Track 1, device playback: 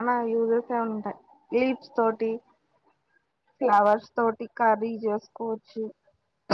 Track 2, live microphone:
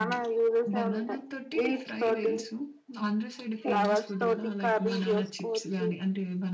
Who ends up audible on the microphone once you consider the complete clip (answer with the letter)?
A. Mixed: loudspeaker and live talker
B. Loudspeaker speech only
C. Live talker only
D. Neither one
A